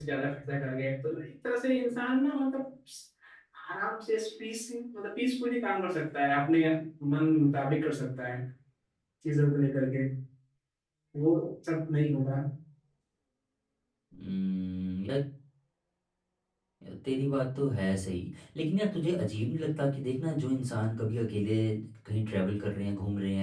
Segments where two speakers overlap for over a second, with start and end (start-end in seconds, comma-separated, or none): none